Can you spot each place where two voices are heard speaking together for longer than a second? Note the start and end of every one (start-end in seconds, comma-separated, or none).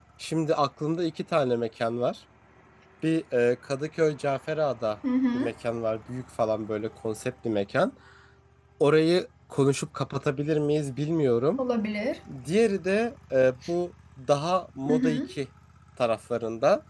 none